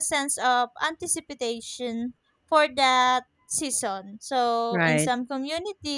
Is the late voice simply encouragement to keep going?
Yes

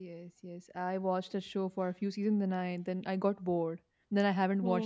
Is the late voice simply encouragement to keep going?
No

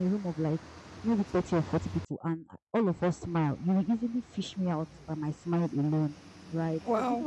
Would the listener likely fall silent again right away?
Yes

